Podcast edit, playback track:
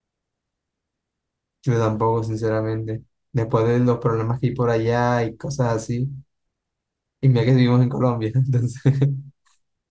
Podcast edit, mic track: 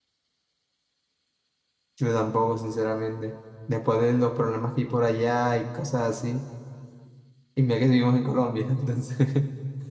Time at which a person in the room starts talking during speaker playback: none

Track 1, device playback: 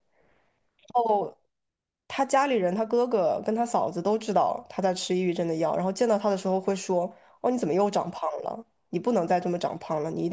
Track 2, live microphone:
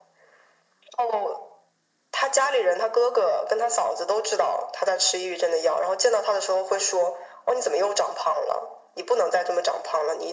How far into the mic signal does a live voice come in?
none

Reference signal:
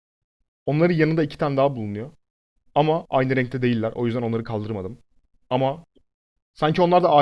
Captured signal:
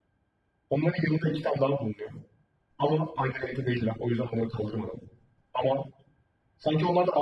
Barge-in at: none

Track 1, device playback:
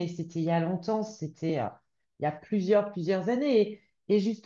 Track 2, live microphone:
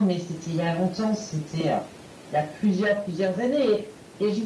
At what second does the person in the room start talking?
none

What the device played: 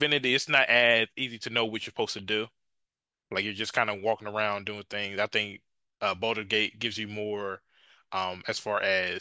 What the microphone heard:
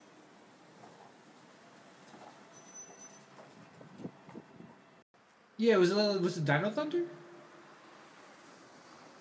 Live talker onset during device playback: 6 s

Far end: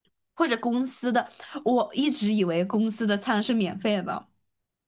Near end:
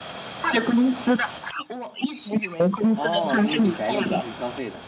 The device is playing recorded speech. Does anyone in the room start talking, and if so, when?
3 s

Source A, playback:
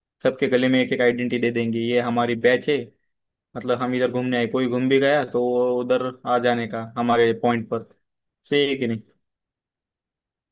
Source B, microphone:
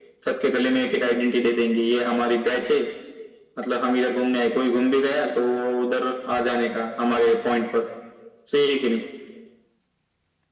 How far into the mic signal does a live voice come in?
none

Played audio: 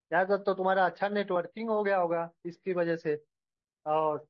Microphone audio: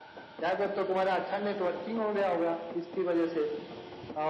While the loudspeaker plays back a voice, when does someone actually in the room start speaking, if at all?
none

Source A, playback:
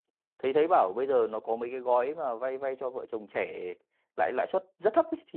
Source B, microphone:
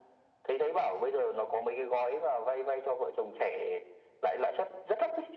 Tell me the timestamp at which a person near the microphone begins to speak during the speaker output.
none

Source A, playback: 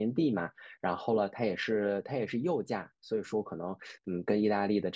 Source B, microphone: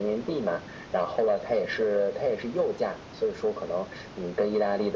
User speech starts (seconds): none

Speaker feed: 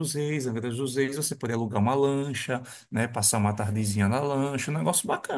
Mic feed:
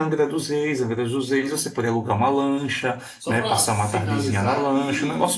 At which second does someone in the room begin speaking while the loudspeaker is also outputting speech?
3 s

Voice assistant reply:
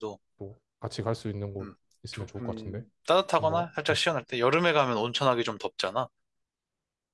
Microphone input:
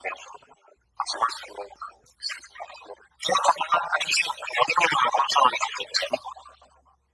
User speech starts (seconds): none

